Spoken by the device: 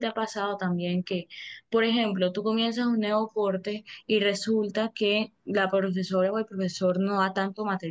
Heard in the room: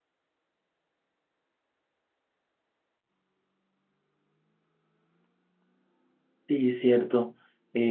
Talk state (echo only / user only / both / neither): user only